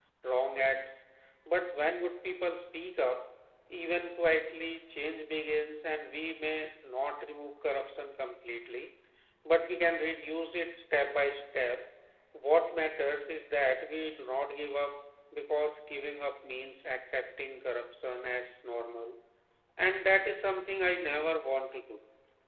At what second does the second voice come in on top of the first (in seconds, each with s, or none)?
none